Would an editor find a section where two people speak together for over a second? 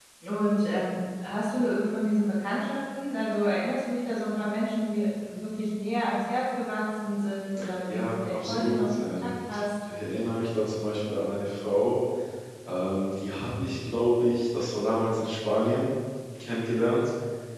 Yes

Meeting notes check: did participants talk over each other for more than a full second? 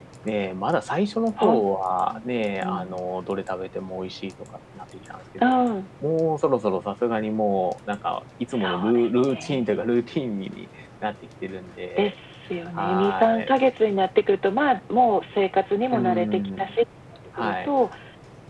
Yes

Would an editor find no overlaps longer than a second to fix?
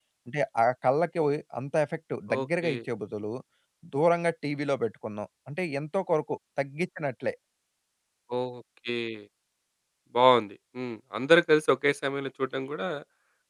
Yes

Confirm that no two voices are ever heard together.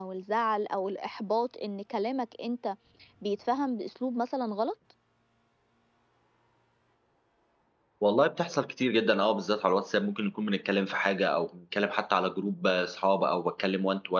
Yes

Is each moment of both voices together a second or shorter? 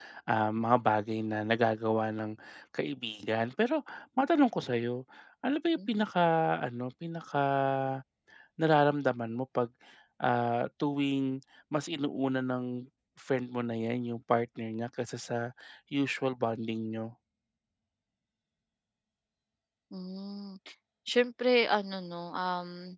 Yes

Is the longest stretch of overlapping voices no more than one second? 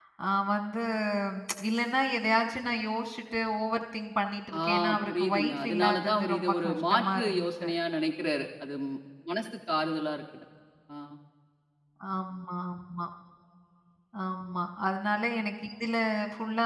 No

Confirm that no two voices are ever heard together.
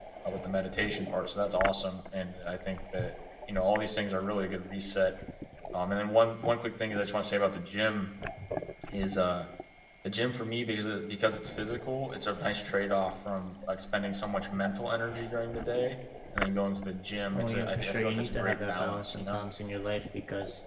No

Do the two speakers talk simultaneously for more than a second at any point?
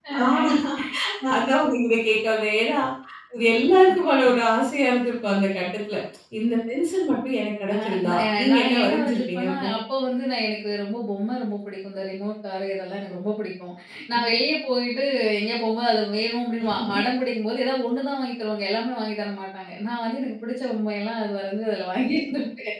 Yes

